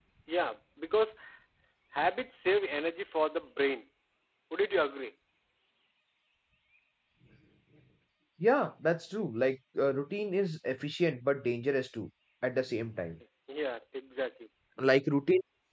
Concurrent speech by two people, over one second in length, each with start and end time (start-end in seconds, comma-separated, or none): none